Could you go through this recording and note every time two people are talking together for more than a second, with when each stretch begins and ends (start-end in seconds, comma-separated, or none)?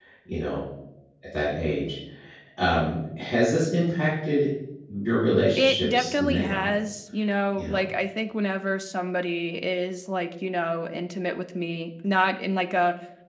5.5-6.8